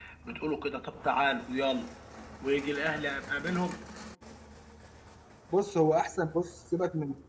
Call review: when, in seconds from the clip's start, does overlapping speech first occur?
none

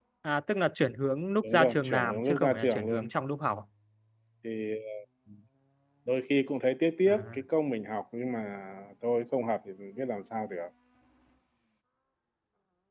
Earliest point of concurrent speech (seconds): 1.4 s

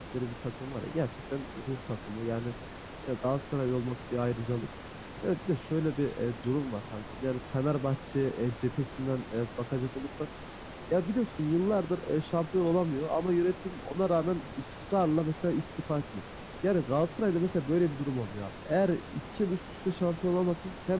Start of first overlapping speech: none

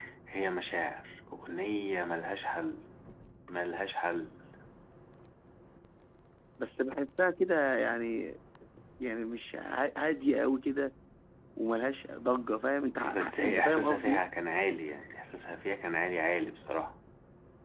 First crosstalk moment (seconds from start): 13.0 s

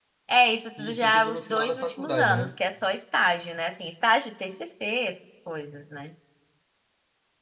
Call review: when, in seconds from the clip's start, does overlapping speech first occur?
0.8 s

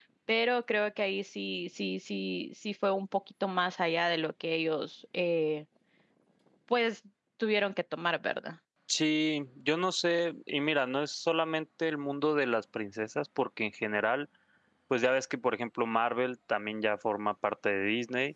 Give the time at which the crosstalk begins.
none

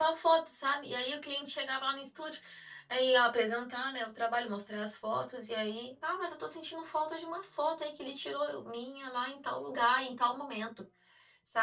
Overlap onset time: none

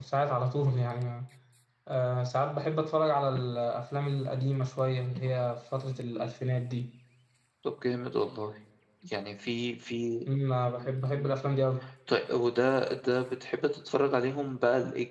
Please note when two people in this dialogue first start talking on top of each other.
none

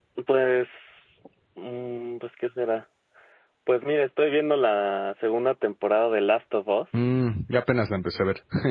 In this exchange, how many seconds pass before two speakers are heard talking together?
none

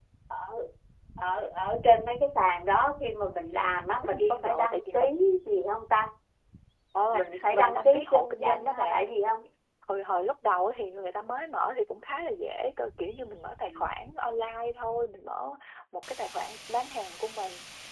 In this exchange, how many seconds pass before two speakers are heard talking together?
4.0 s

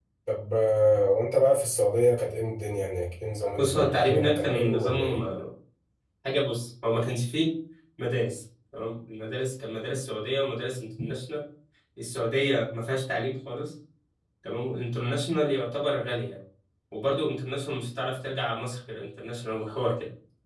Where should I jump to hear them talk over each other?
3.6 s

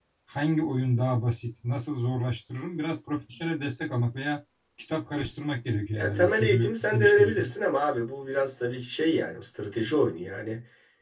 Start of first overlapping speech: 6.0 s

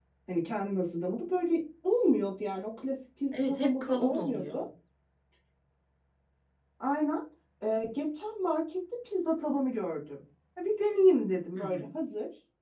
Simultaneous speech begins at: 3.3 s

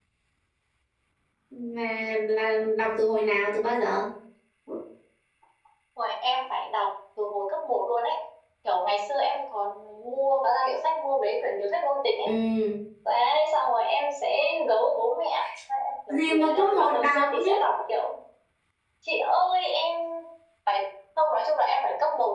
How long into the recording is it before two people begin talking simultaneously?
16.3 s

